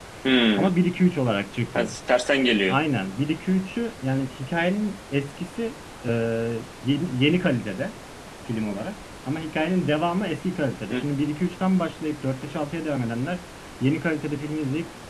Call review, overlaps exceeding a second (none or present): none